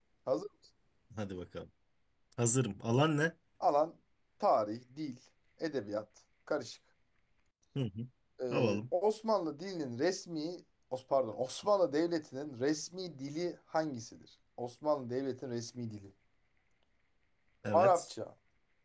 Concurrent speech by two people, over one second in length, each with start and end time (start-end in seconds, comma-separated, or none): none